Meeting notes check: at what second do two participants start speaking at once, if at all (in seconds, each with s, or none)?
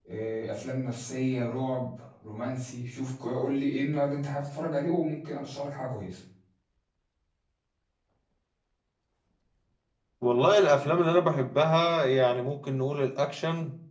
none